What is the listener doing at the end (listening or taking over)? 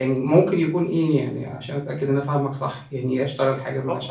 taking over